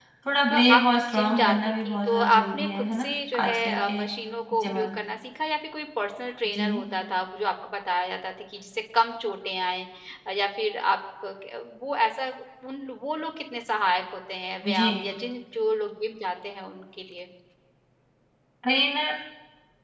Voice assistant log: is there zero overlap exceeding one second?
No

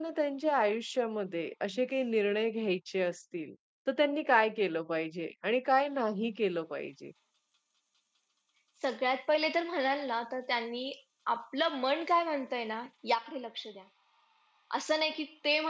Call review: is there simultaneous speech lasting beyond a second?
No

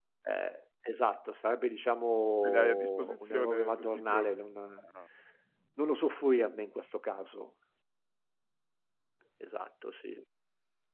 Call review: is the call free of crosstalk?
No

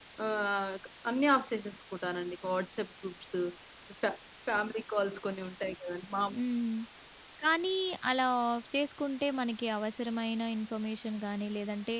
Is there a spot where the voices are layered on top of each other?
No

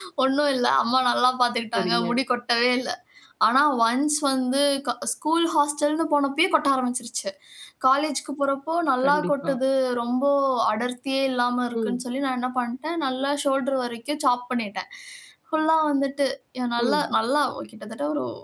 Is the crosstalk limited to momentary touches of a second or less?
Yes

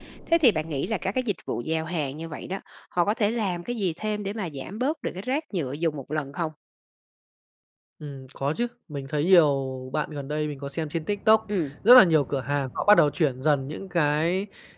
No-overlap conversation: Yes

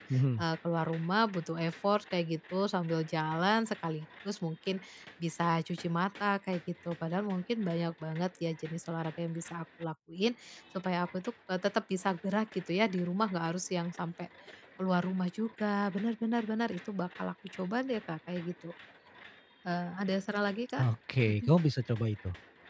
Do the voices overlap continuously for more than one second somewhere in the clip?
No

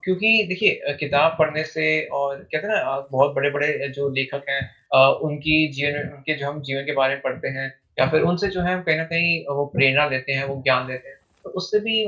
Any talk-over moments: No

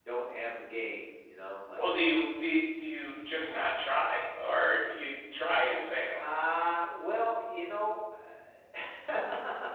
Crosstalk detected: No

